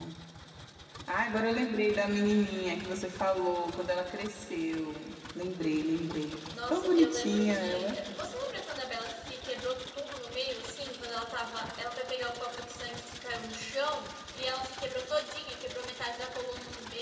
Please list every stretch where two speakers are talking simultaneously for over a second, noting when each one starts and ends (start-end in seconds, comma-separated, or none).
6.7-8.0